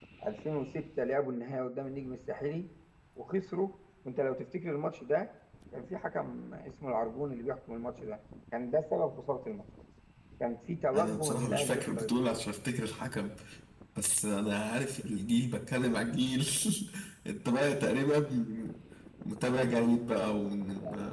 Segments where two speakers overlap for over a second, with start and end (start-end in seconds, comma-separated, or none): 10.9-12.5